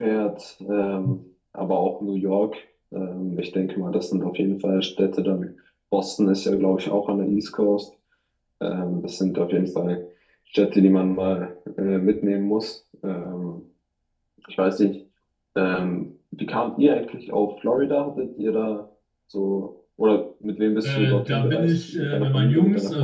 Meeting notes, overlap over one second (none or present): present